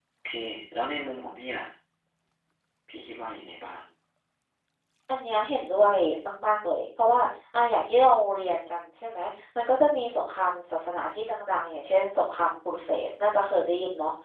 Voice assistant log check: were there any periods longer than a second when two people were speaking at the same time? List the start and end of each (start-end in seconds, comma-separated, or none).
none